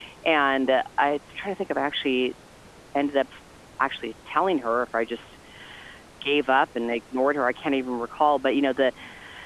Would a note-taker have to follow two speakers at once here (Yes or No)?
No